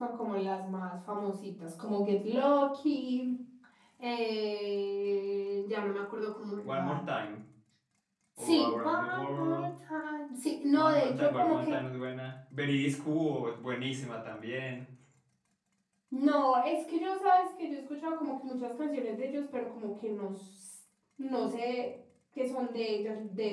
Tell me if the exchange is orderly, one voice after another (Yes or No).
No